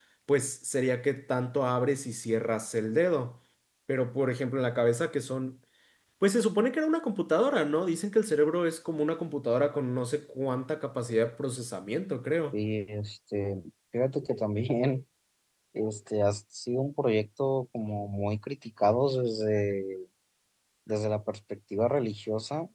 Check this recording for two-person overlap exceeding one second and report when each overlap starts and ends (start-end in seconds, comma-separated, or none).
none